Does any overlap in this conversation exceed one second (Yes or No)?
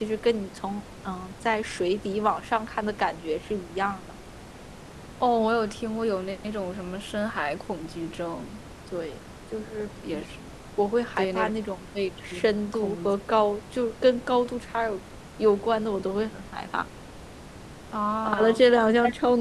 No